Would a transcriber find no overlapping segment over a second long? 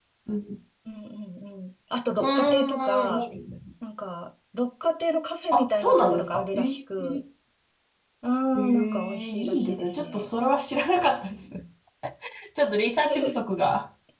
No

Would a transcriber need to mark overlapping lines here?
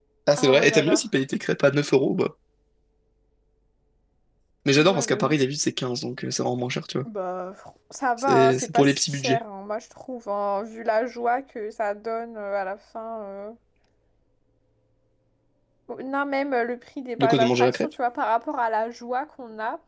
Yes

